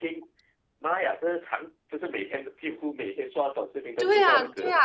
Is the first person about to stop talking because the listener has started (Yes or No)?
Yes